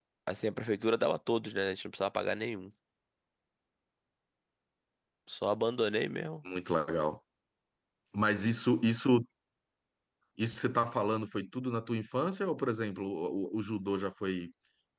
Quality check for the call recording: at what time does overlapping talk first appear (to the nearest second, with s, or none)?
none